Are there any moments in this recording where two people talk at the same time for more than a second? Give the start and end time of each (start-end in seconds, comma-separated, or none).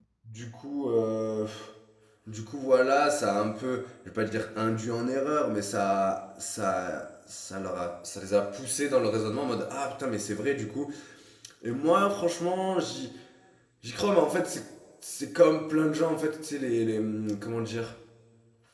none